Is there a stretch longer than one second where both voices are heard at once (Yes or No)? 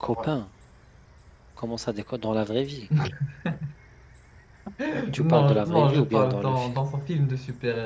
Yes